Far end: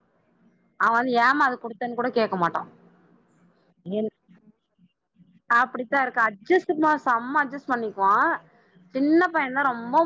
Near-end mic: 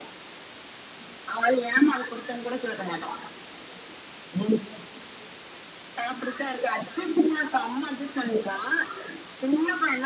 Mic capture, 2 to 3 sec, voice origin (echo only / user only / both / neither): echo only